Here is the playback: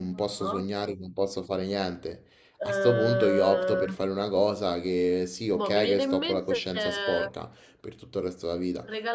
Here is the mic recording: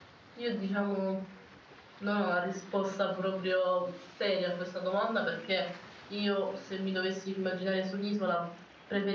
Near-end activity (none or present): present